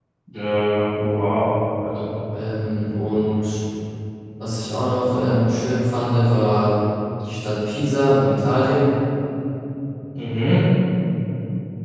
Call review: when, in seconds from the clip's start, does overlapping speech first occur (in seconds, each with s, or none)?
none